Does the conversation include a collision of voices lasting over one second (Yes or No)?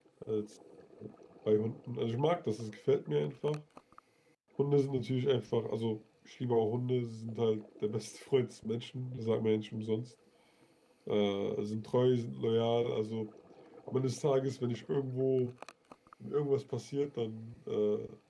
No